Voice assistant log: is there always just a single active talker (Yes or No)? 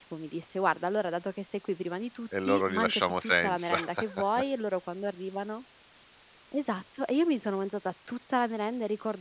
No